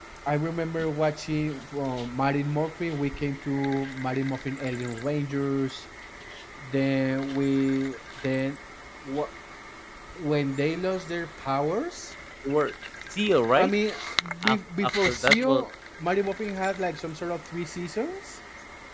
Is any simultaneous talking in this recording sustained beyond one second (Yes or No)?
Yes